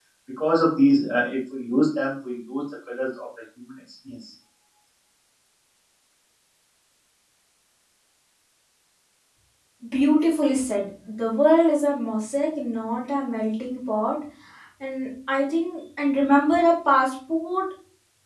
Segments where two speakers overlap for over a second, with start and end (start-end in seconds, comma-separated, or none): none